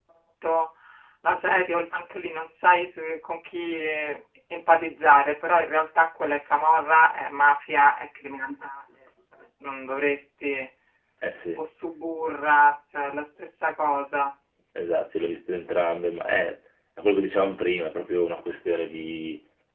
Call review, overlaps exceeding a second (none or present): none